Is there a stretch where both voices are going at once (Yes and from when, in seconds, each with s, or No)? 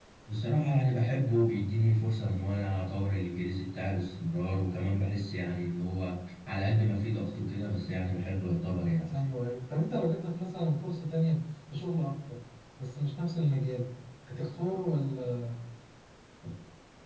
No